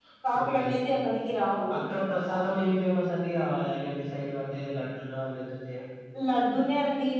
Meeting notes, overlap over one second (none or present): none